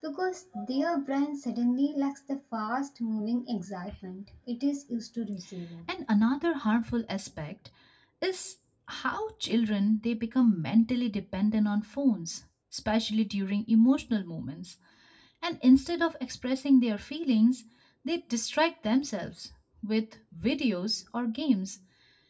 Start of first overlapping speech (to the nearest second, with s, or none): none